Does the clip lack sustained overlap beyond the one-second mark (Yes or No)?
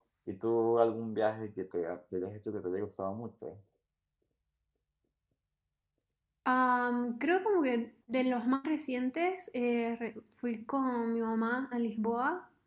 Yes